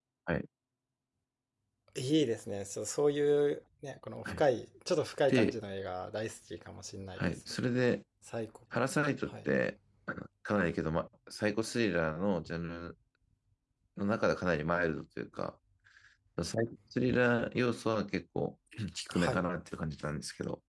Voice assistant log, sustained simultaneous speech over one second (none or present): none